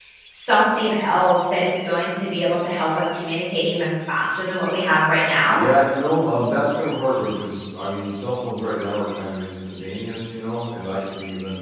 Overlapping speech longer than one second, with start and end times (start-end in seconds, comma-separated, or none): none